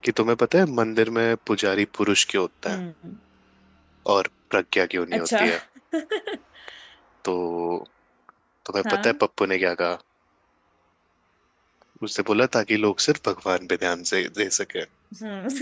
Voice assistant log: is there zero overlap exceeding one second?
Yes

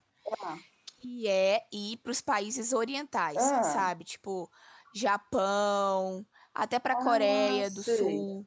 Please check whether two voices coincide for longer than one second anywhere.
Yes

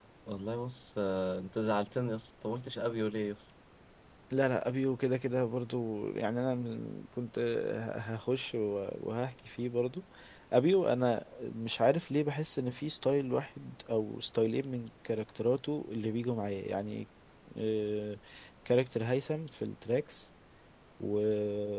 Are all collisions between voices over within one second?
Yes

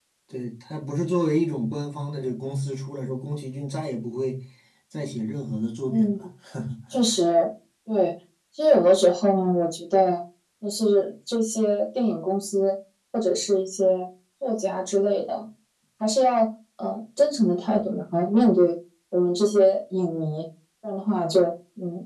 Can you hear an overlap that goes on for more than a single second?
No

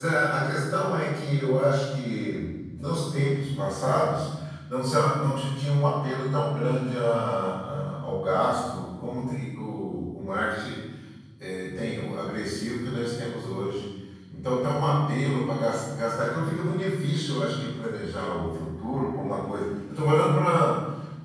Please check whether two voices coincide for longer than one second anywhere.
No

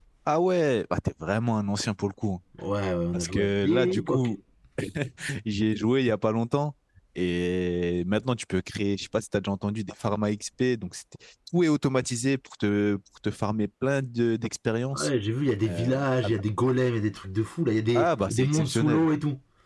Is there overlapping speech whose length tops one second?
Yes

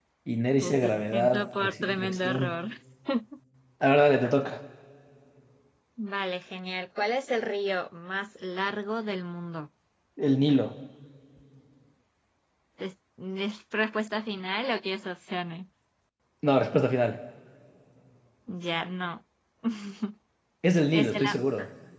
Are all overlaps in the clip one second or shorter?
No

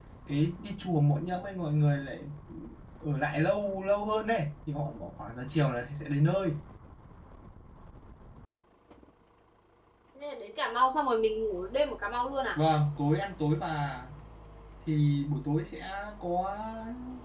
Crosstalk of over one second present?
No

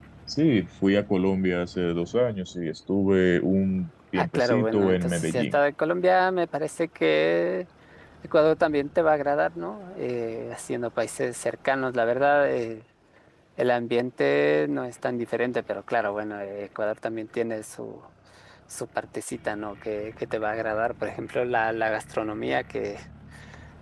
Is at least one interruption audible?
Yes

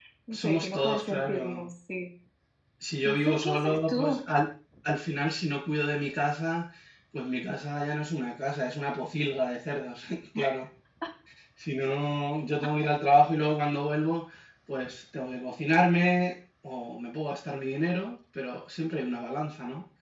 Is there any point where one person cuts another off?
Yes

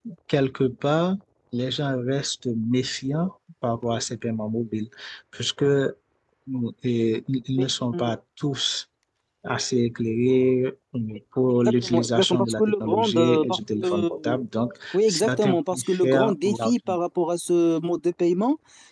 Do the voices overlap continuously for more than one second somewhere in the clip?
Yes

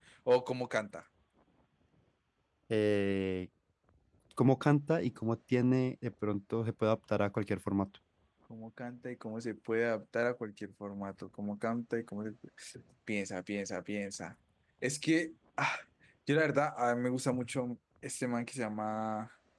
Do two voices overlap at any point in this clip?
No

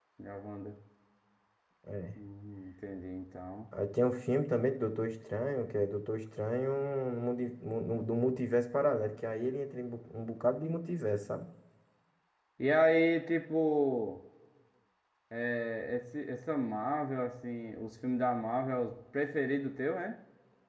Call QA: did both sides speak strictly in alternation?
Yes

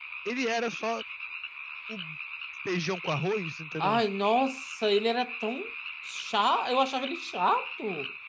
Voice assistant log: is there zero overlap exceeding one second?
Yes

